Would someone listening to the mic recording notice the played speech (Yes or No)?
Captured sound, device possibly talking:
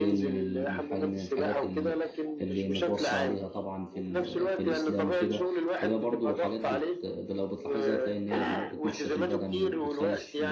Yes